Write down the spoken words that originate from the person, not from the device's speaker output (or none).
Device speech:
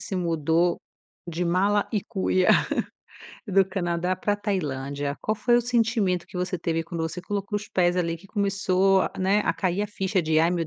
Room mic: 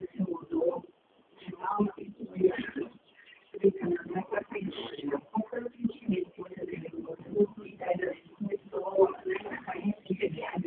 E